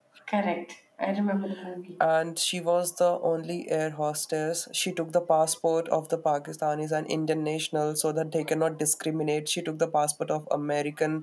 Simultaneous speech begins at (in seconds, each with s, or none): none